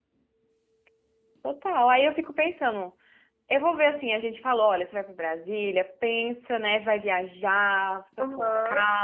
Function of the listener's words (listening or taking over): taking over